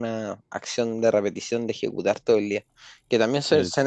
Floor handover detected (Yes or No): No